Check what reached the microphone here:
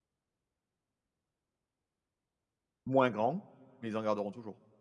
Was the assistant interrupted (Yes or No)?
Yes